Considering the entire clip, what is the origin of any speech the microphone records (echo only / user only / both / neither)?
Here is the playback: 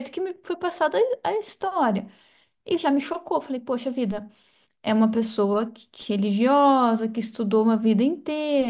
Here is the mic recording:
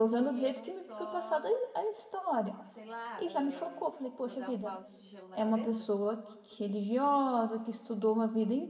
both